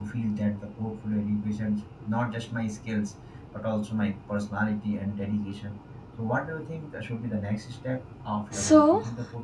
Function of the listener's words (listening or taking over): taking over